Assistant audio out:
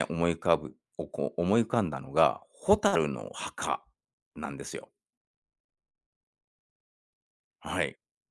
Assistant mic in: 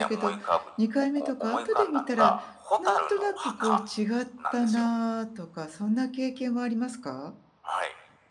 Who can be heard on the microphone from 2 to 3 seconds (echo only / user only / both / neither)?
both